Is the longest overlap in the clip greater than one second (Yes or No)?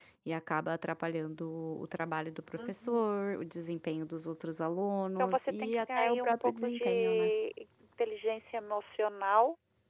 Yes